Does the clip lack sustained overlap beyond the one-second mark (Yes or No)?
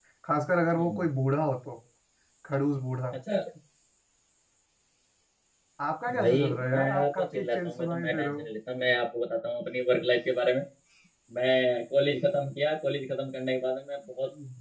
No